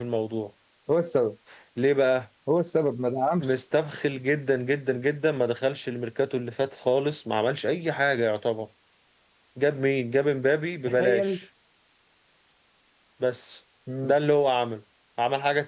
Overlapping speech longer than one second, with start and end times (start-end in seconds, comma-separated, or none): none